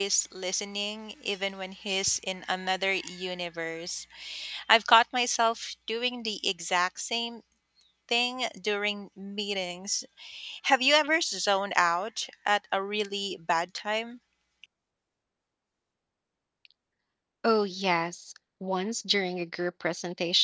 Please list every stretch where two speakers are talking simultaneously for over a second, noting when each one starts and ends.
none

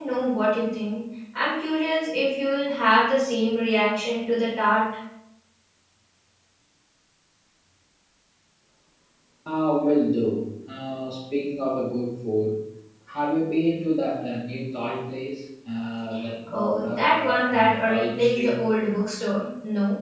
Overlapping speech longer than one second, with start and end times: 16.5-18.6

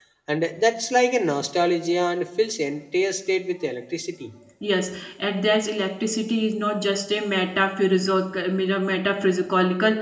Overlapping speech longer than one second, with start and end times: none

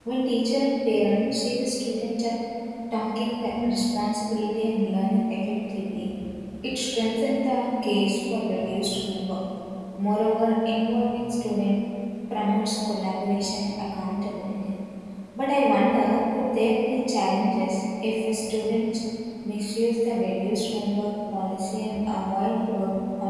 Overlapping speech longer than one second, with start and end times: none

